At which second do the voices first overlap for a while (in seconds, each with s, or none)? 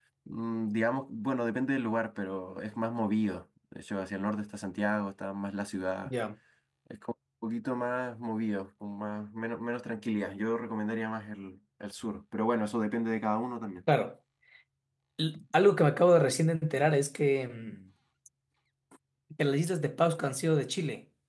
none